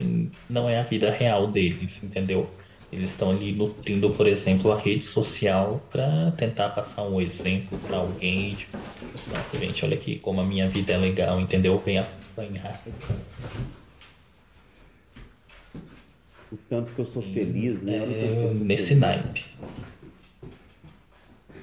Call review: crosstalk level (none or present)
present